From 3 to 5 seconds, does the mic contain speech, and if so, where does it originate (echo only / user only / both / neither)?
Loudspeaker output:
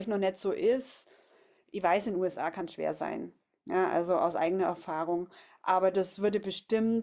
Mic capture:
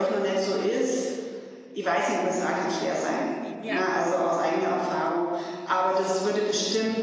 both